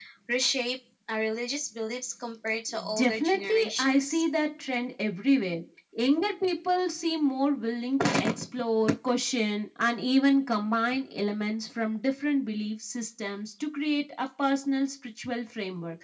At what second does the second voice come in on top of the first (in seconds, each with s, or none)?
2.9 s